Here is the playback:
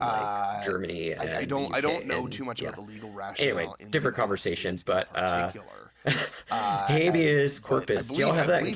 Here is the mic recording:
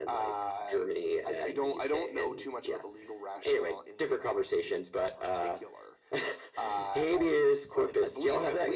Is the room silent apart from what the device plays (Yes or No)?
Yes